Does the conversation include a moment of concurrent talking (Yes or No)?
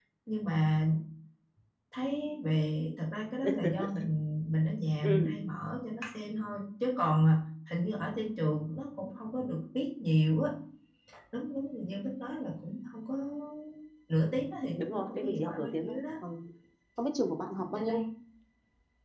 Yes